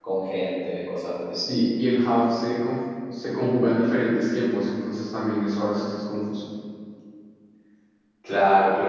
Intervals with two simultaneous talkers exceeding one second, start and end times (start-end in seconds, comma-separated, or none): none